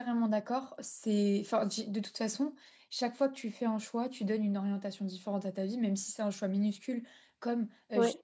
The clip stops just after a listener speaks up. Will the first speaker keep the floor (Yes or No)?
Yes